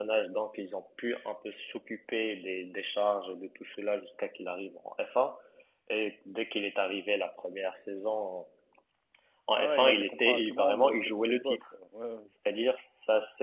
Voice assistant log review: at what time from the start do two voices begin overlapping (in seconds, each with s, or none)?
9.6 s